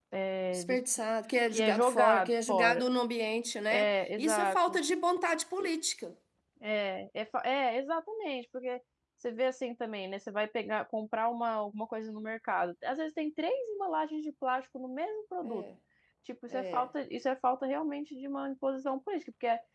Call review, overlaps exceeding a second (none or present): present